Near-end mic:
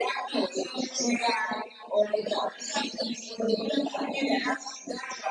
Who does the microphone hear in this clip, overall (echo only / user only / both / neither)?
echo only